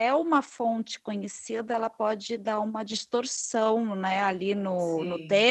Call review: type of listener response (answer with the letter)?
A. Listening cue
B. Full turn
A